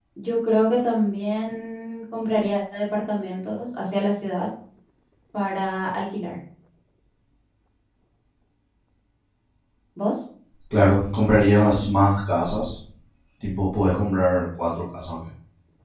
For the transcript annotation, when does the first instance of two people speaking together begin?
none

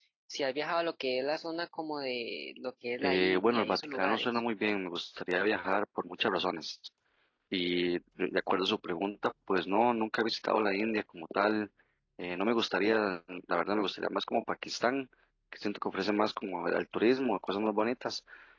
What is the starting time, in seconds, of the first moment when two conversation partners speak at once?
3.0 s

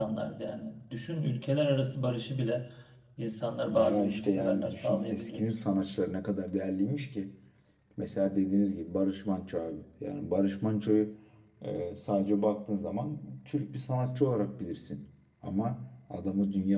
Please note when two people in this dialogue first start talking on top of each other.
3.6 s

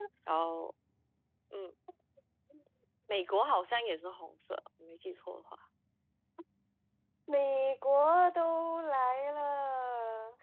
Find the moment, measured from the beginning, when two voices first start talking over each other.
none

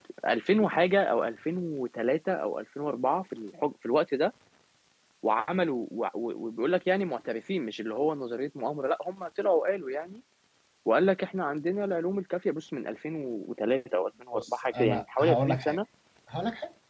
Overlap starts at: 14.3 s

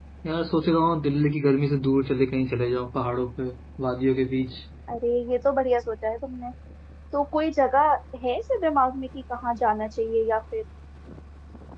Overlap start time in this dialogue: none

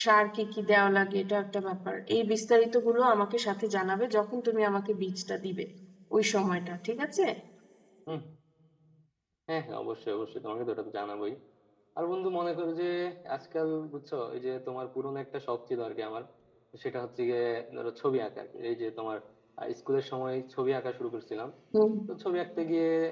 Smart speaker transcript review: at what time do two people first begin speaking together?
none

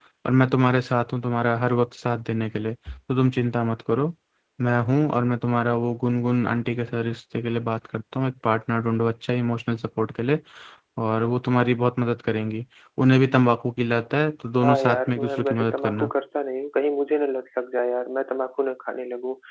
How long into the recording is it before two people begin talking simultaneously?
14.6 s

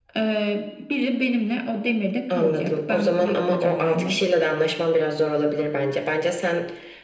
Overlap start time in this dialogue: 2.3 s

